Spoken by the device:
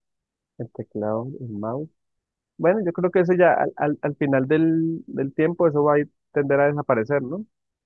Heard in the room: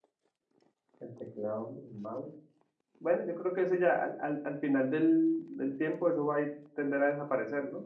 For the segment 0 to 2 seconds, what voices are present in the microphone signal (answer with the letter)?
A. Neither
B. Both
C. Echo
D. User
C